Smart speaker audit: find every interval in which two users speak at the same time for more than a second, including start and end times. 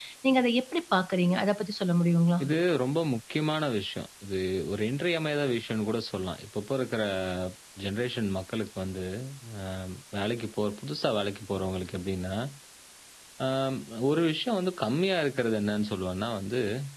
none

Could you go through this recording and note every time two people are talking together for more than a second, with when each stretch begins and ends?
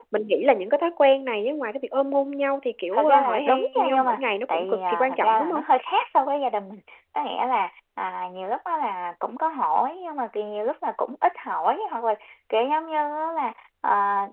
2.9-5.6

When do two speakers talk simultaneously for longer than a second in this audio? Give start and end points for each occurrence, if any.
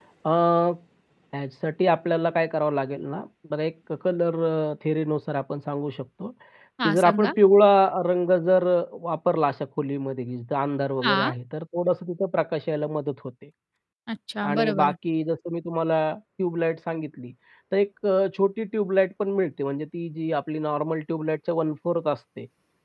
none

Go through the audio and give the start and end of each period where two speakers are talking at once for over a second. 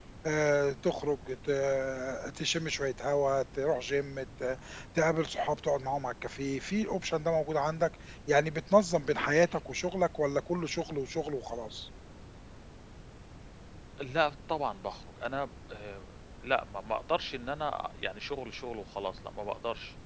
none

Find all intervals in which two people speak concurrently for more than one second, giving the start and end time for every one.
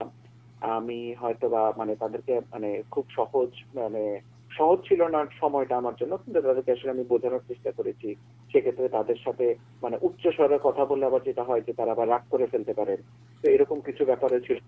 none

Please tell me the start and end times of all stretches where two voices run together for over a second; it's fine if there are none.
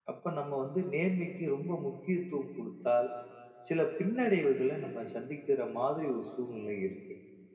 none

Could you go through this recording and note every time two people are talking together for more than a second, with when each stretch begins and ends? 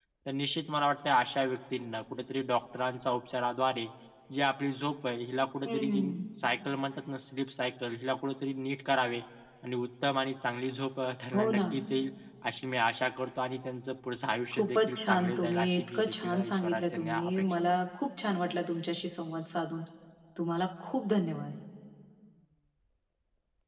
14.6-17.7

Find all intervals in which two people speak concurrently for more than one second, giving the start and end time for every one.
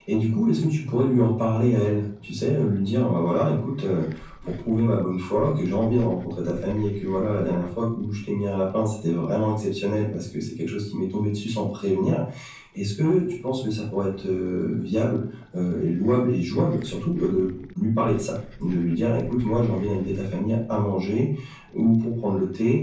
none

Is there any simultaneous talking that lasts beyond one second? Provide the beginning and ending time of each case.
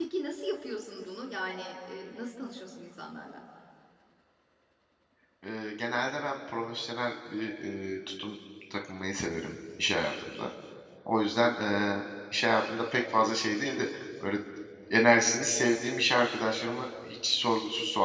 none

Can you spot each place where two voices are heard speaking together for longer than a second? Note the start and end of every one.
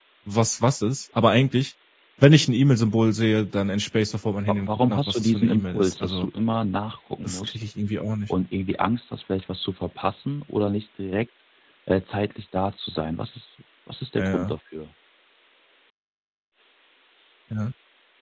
4.5-6.3

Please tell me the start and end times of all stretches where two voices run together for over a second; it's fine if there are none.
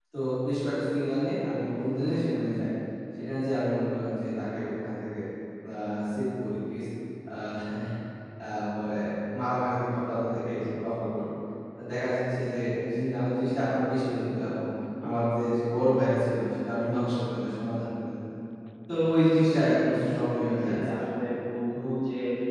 19.6-20.8

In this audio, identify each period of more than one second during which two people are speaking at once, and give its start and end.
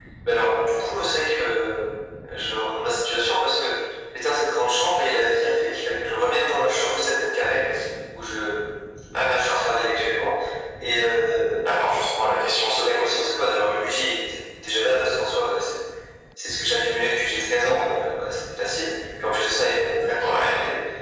none

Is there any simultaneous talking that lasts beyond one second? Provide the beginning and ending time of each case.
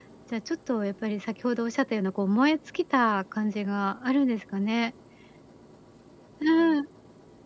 none

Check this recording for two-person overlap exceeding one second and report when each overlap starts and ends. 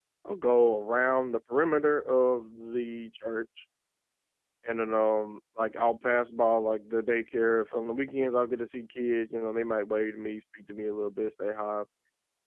none

